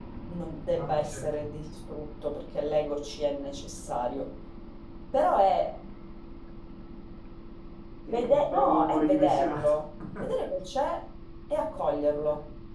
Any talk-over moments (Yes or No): Yes